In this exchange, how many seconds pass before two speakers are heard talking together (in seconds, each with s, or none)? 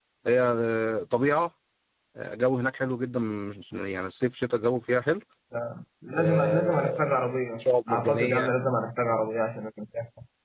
6.1 s